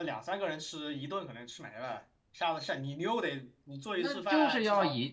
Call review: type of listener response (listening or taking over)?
taking over